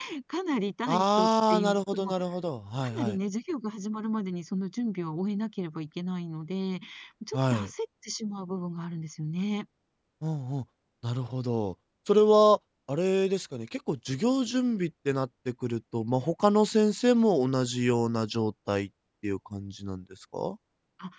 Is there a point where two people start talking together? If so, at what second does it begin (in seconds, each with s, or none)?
0.9 s